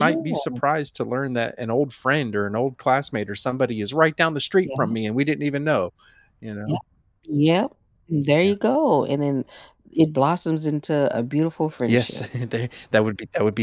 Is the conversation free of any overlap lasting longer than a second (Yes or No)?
Yes